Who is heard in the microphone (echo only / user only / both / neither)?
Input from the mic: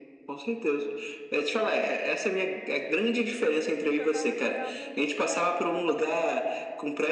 both